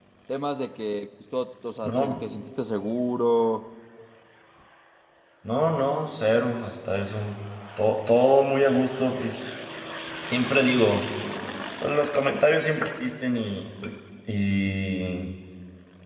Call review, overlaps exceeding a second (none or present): none